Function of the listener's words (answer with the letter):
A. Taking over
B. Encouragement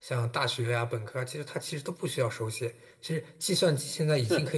B